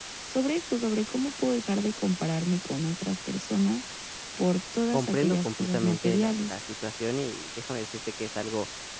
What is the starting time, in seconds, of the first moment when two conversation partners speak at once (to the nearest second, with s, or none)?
5 s